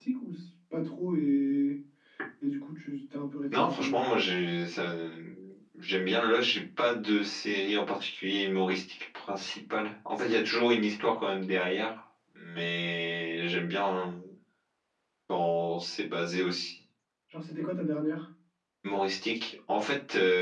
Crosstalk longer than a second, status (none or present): none